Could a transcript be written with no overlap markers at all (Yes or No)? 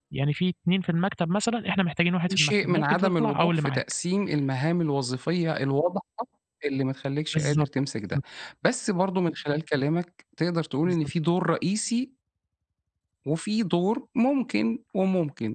No